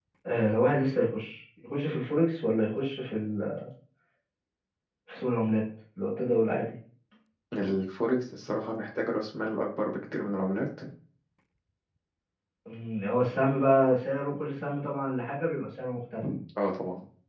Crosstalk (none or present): none